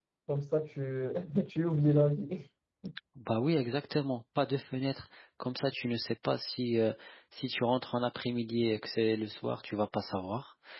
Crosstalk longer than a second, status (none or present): none